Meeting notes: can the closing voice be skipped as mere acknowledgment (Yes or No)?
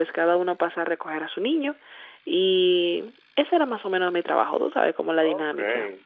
No